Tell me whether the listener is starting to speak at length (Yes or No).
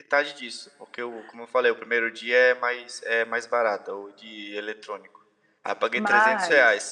No